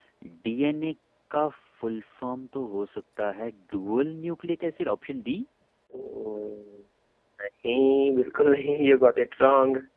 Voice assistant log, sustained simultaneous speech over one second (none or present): none